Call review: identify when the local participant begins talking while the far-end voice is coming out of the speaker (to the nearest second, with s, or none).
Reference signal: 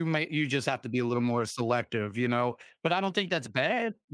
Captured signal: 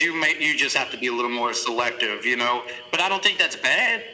none